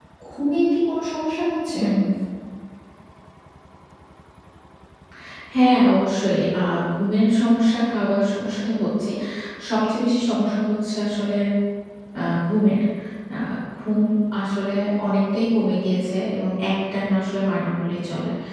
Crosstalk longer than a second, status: none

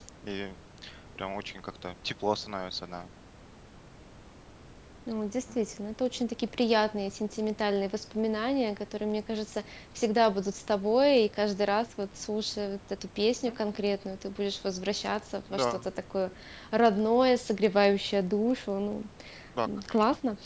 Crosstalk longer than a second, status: none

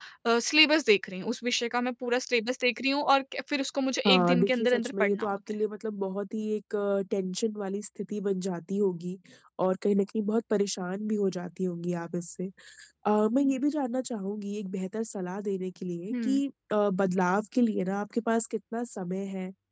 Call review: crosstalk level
present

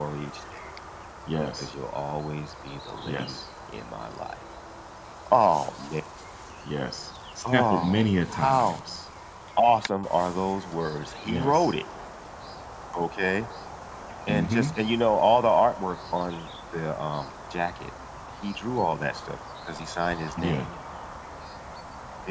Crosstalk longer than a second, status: present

